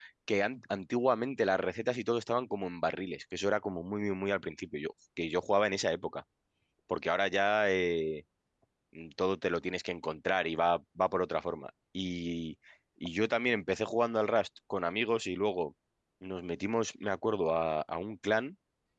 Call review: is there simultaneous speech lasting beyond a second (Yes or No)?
No